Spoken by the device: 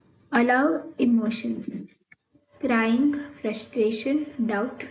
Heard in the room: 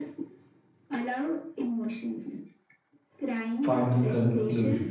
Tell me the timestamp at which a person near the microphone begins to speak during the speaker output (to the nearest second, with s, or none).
4 s